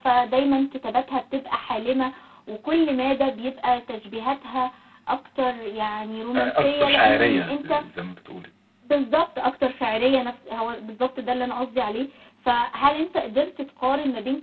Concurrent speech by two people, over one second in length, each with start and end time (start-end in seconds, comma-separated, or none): 6.3-7.7